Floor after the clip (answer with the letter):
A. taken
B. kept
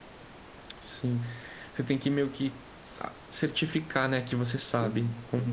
A